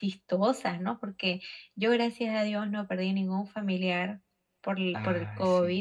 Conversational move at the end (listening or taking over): listening